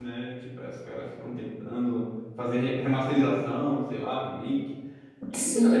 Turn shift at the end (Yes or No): Yes